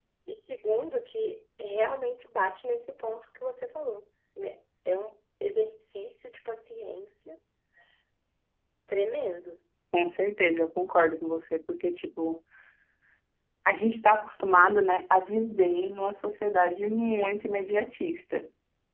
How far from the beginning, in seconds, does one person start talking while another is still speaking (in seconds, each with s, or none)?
none